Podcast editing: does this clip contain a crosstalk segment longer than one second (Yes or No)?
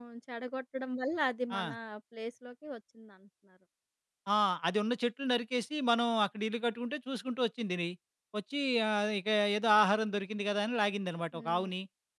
No